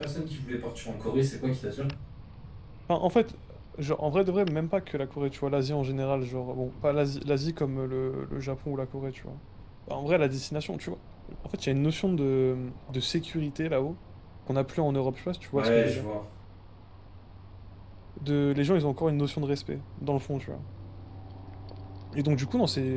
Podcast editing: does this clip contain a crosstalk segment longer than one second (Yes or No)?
No